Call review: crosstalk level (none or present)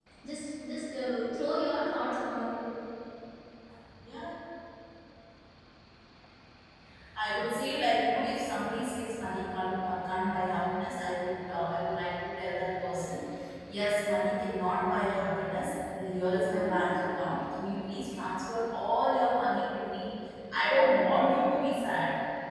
none